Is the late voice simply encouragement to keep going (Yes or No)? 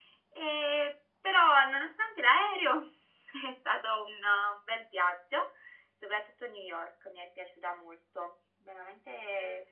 No